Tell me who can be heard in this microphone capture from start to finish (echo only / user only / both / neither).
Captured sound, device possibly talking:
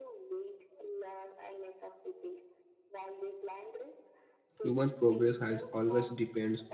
both